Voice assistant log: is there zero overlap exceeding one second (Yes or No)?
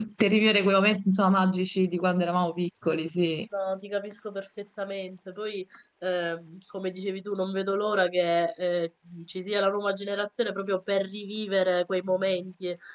Yes